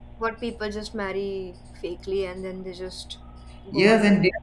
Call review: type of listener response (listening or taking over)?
taking over